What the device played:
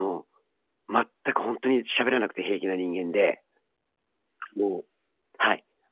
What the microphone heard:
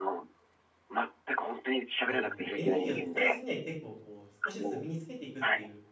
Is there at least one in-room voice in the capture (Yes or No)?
Yes